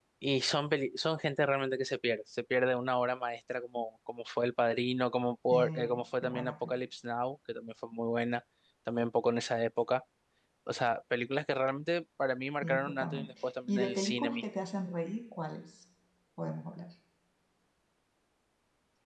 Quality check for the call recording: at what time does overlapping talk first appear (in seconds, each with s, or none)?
5.5 s